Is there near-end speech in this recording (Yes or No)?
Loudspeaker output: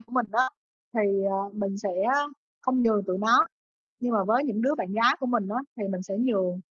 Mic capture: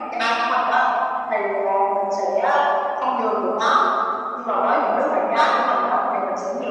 No